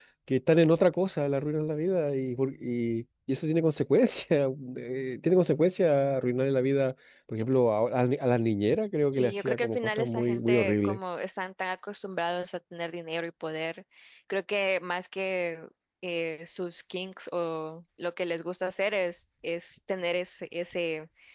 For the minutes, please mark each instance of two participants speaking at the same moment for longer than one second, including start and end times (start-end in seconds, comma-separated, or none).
9.1-11.0